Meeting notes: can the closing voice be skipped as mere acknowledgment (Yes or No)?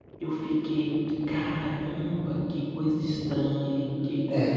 No